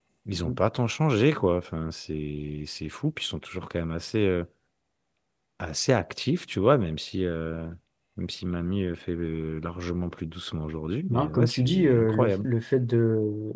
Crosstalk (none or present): present